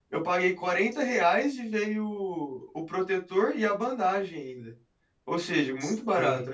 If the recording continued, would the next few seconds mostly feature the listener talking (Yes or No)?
Yes